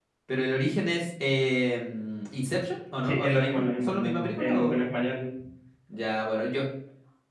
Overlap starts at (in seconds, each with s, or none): 3.0 s